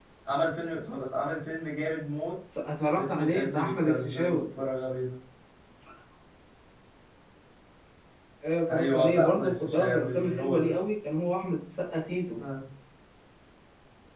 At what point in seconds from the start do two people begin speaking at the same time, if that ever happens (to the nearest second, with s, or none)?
3 s